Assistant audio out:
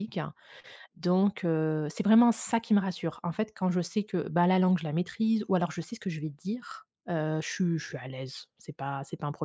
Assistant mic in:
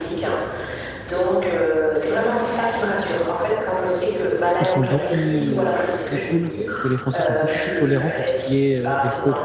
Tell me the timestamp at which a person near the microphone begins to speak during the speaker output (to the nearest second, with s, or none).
5 s